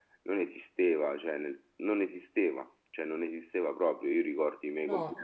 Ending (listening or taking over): listening